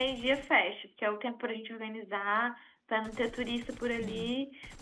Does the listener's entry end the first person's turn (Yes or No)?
No